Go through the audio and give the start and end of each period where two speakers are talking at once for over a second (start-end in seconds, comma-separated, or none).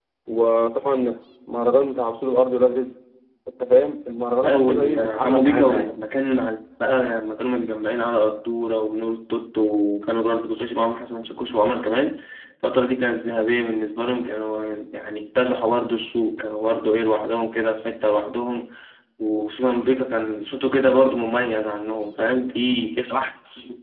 4.4-5.9